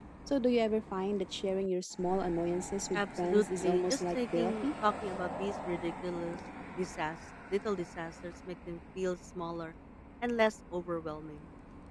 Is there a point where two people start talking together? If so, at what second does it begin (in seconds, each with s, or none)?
2.9 s